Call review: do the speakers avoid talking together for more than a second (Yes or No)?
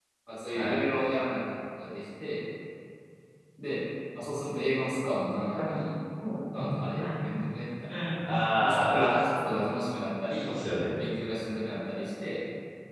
Yes